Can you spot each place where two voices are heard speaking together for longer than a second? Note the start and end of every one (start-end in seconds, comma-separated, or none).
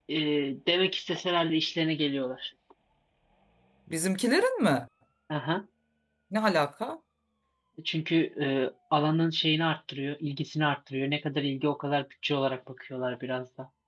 none